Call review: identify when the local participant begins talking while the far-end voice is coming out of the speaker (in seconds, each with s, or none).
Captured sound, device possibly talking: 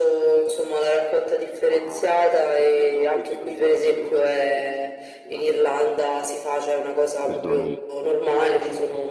7.2 s